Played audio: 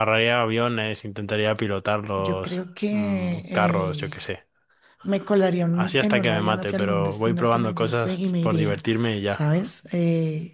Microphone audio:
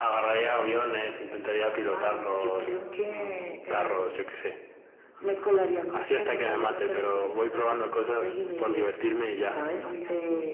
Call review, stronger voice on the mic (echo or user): echo